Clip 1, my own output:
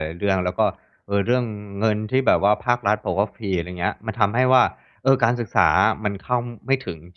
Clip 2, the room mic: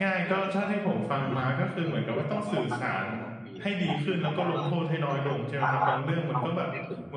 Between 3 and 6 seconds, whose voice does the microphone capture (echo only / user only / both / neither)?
both